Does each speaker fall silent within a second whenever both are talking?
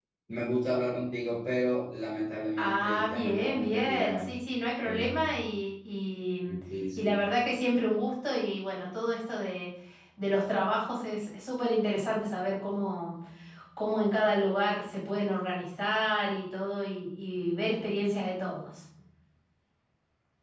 No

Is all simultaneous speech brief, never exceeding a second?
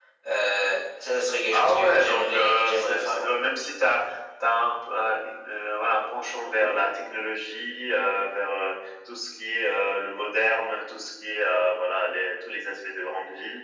No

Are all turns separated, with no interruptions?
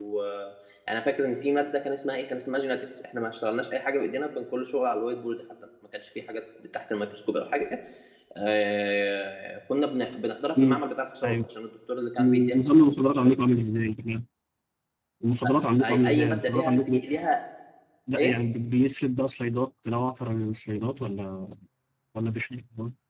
No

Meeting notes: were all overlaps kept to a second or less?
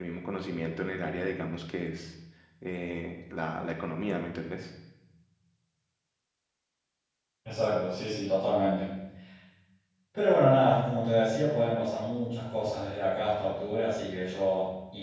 Yes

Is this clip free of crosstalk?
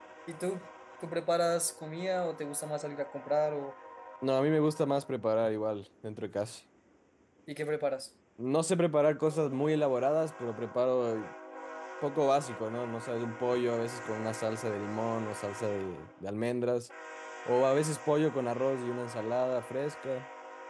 Yes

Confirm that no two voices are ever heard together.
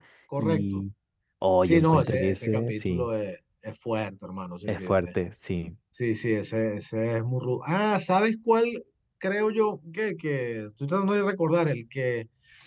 No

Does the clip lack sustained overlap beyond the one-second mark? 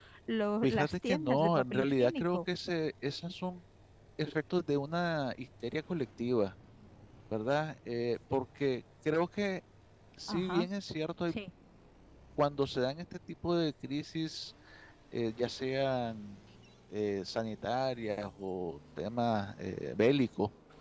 No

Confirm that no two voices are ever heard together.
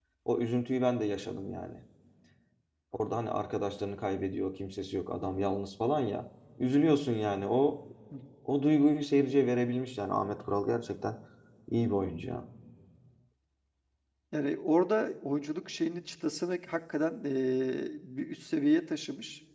Yes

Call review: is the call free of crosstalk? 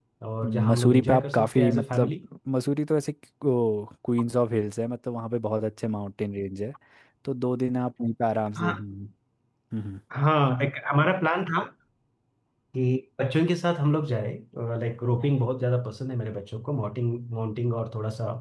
No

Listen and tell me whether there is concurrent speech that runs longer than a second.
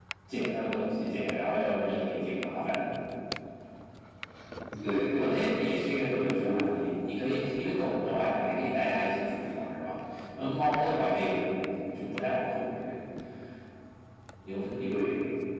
No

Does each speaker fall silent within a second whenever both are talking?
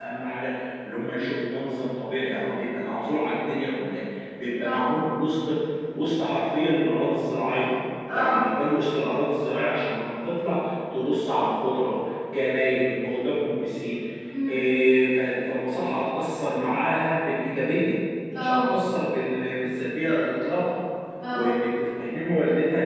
Yes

